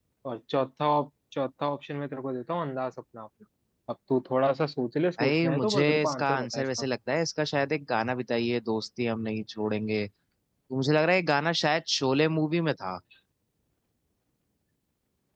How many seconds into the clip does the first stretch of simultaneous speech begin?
5.2 s

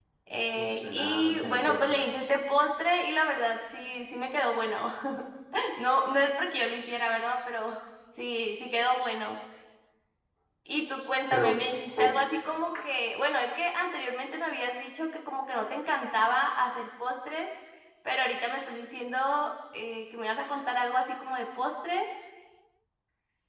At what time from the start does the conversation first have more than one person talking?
0.6 s

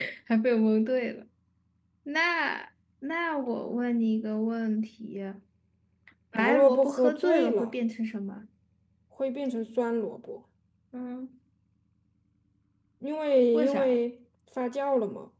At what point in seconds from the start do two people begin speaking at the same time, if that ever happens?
6.4 s

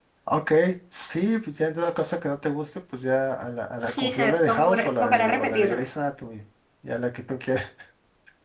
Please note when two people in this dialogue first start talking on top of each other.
3.8 s

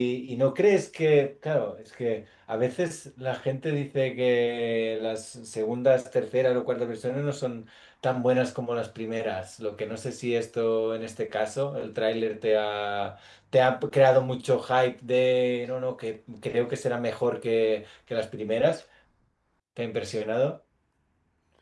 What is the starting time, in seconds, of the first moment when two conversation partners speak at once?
none

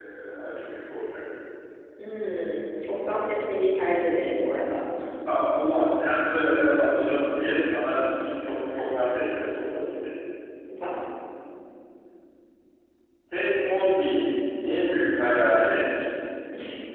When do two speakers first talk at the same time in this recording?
none

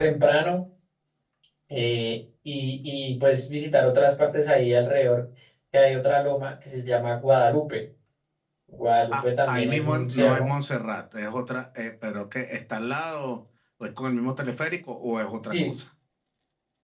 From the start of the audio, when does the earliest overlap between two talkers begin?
9.1 s

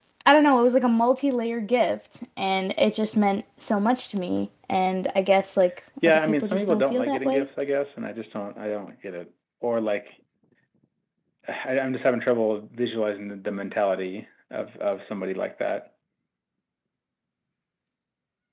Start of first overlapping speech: 6.0 s

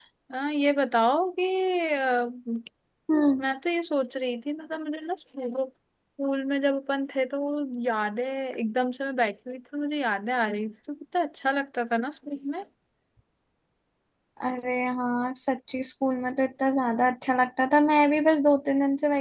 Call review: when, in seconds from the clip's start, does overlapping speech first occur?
none

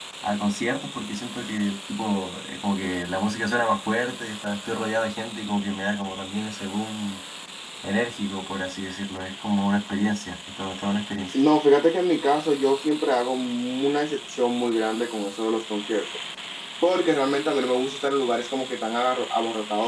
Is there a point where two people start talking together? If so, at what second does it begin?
none

